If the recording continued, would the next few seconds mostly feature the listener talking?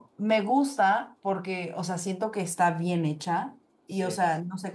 No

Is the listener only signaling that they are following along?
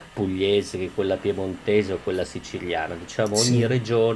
Yes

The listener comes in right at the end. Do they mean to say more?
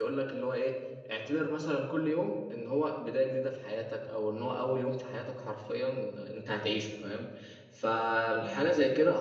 No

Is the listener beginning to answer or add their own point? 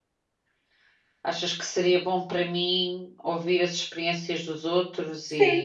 Yes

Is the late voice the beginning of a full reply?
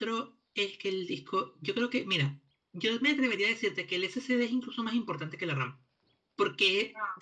No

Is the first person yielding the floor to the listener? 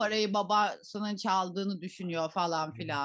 Yes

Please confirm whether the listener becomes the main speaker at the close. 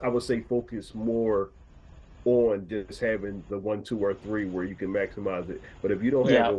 No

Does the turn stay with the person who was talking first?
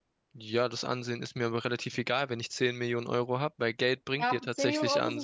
No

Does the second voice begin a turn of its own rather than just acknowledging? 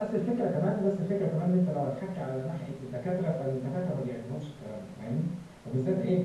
No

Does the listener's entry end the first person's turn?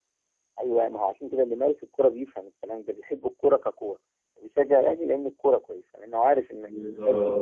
Yes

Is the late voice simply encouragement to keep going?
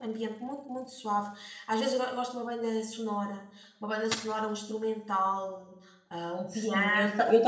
No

